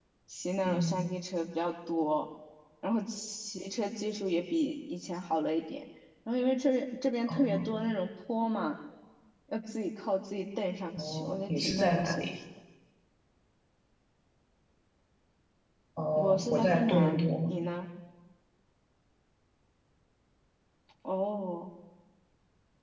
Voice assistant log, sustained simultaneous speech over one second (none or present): present